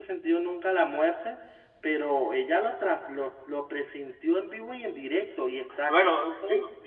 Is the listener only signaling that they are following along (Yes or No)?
No